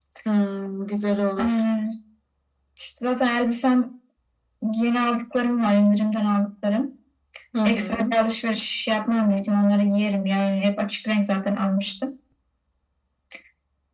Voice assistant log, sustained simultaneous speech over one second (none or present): none